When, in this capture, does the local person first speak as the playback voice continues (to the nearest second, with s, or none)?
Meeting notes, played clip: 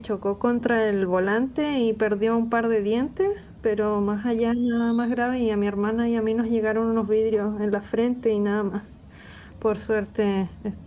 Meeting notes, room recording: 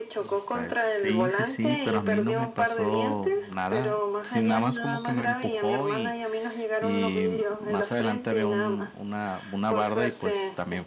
0 s